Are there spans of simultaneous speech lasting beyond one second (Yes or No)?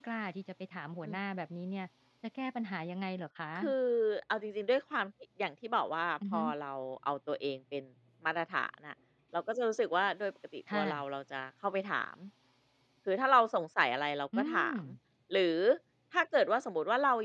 No